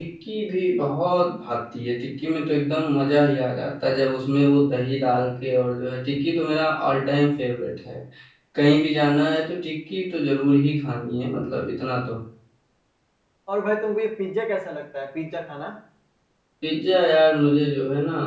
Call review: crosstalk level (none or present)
none